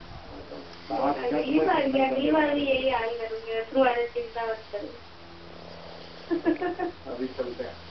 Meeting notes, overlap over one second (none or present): present